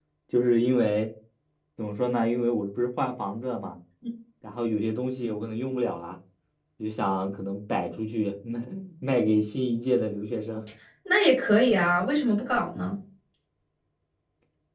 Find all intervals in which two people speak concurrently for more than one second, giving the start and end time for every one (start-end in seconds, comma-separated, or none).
none